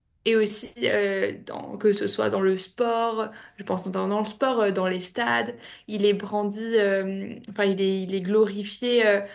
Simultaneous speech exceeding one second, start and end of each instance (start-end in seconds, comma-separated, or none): none